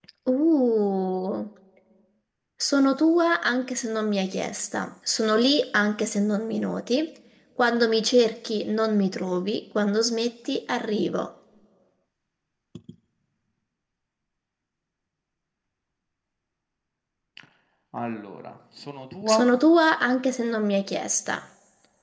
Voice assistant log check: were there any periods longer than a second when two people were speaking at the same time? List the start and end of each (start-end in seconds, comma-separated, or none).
none